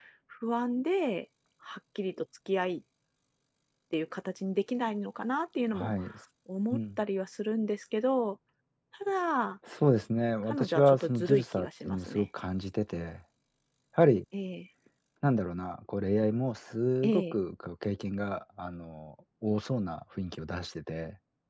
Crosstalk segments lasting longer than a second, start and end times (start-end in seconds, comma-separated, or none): 10.5-12.3